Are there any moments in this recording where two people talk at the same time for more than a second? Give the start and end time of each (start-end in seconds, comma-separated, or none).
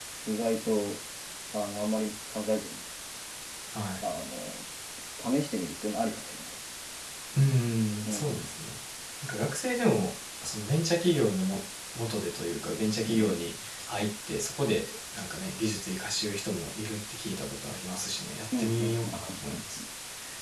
18.6-19.8